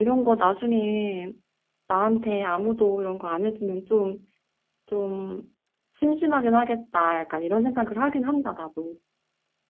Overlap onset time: none

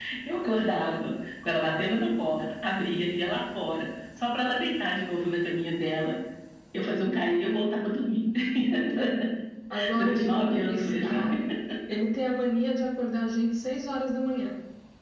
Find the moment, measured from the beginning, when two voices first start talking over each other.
9.9 s

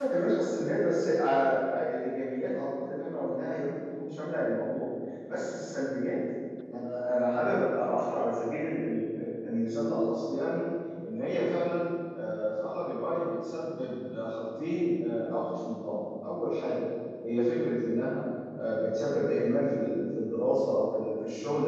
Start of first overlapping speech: none

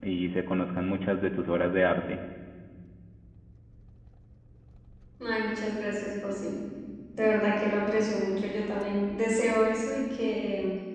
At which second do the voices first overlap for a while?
none

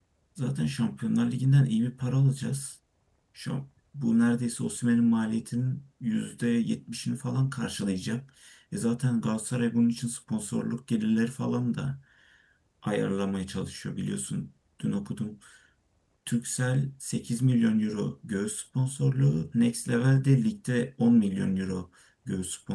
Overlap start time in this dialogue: none

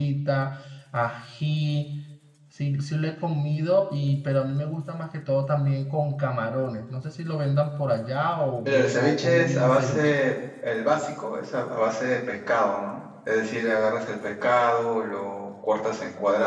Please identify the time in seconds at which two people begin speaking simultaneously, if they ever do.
8.6 s

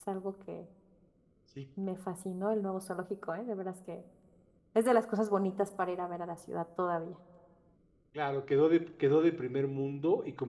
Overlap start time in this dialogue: none

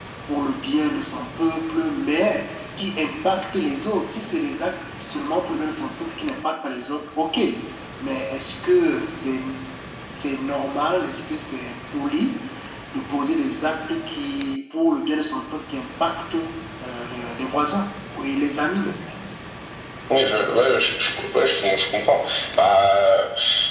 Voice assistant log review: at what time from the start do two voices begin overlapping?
none

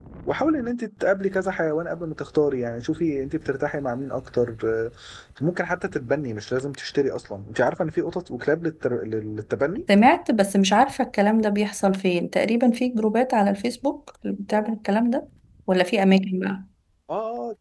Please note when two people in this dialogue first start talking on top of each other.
none

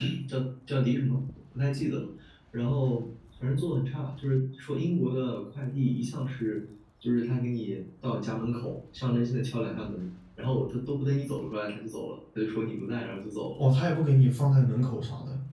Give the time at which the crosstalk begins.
none

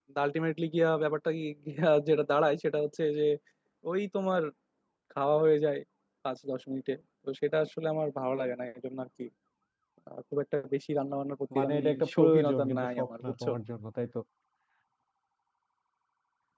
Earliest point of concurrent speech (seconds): 11.5 s

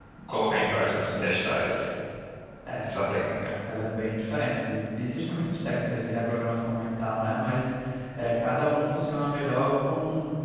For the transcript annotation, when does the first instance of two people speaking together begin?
none

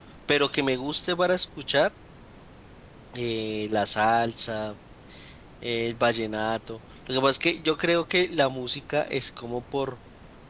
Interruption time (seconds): none

